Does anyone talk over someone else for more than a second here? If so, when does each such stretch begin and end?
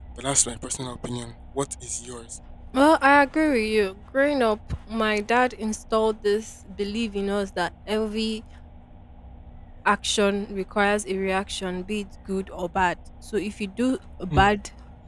none

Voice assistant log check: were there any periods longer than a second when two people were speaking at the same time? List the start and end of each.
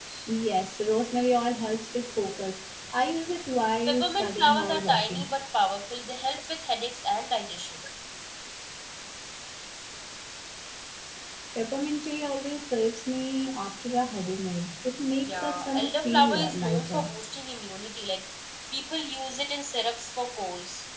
3.9-5.3, 15.2-17.1

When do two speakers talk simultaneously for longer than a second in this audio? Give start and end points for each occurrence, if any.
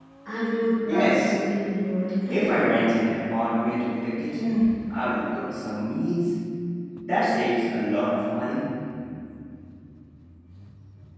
none

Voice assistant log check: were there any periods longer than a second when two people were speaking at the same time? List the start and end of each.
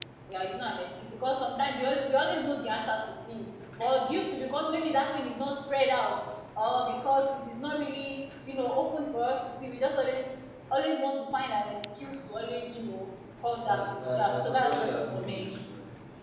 13.6-15.5

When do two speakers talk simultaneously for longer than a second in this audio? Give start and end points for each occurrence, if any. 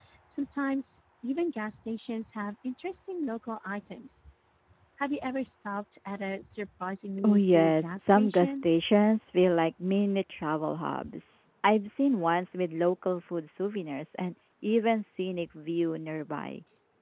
7.2-8.6

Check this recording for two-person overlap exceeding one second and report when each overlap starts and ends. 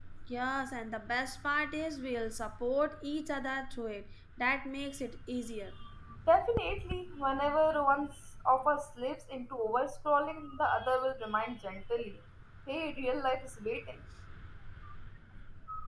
none

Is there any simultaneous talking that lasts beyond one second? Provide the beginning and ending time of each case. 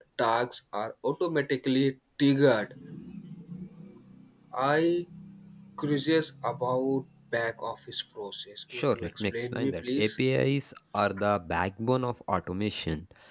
8.7-10.1

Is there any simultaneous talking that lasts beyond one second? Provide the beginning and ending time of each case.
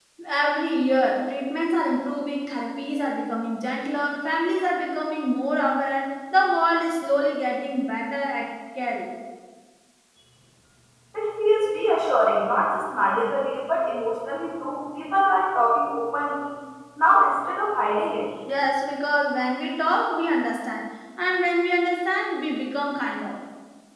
none

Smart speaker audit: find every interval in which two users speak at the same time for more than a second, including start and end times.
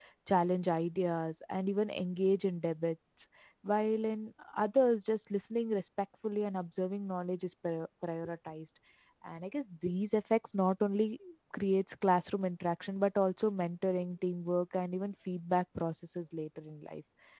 none

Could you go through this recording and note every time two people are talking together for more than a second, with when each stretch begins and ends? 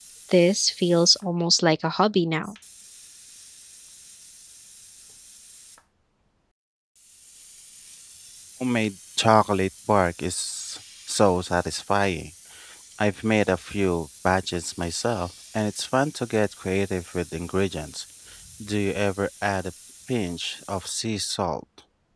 none

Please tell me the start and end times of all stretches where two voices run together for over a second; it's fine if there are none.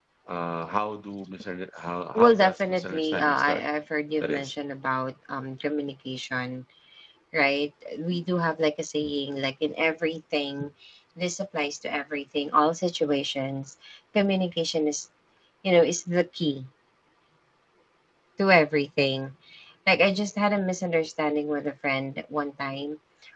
2.2-3.6

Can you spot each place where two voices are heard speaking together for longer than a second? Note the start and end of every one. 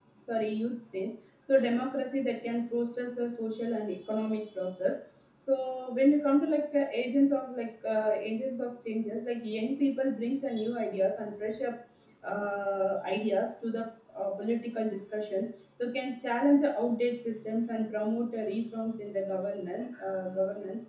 none

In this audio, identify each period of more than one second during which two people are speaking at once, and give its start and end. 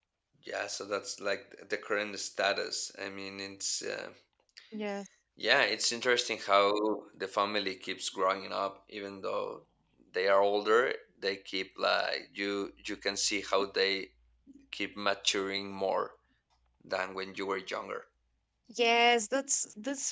none

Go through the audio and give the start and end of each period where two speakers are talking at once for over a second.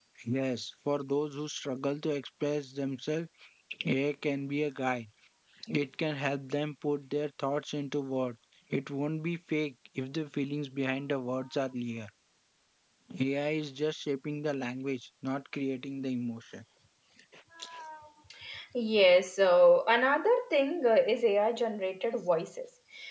none

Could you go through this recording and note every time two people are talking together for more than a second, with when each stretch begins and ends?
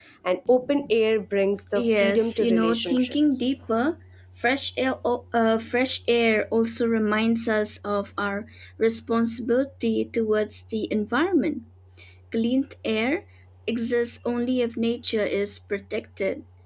1.8-3.5

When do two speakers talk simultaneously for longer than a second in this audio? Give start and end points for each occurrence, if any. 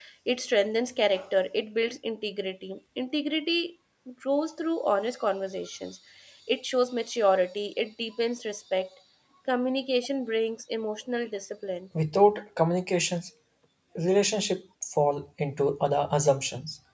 none

